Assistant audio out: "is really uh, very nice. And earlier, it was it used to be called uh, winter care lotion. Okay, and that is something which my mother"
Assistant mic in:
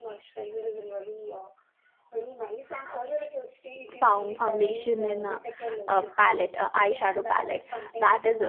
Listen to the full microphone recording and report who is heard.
both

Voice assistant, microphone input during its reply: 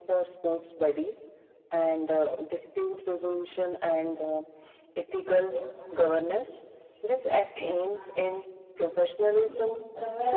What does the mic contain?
both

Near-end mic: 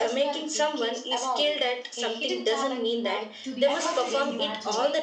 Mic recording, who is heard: both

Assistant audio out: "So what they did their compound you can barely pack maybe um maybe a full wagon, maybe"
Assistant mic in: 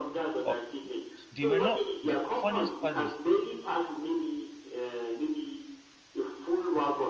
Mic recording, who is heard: both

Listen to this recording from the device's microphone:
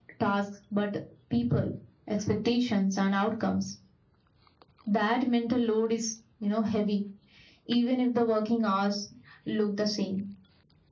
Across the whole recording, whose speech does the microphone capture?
echo only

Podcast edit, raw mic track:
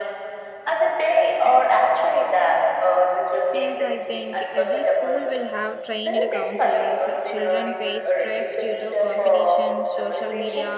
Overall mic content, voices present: both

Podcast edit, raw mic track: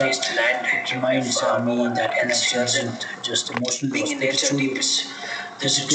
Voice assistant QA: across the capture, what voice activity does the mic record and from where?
both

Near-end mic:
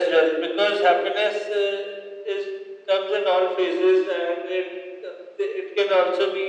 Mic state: echo only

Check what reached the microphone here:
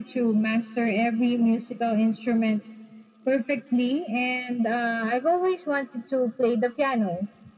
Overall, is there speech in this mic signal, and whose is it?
echo only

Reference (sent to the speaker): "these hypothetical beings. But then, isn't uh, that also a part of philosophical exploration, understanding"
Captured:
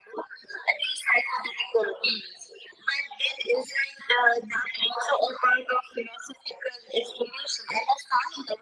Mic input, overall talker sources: echo only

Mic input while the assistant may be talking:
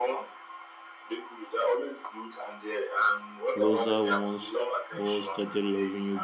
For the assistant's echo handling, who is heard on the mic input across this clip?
both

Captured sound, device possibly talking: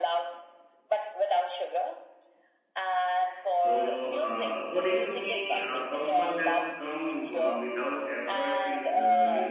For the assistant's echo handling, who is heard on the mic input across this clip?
both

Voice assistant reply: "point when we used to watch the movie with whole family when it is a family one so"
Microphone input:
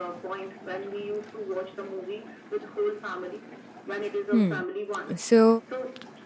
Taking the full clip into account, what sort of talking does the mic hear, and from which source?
both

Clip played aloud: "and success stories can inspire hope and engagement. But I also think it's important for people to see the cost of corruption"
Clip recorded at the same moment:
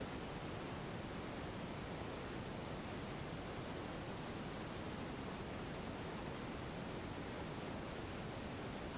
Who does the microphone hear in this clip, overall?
neither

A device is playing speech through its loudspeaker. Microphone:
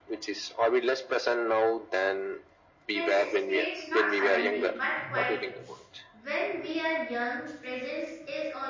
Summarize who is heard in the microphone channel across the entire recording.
both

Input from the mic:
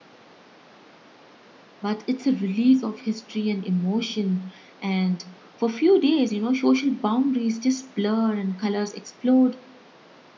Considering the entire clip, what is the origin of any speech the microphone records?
user only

